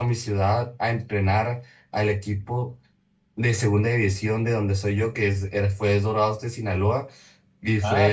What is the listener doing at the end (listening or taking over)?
taking over